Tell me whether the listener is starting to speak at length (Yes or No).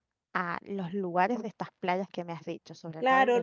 Yes